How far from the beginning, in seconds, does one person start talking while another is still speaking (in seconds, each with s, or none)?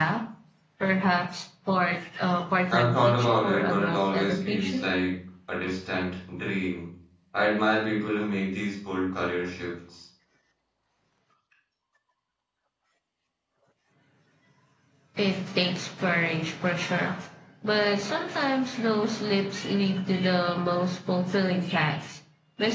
2.7 s